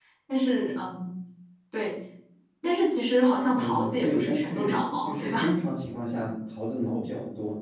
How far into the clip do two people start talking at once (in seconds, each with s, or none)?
3.5 s